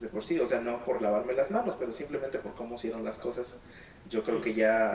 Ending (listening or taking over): listening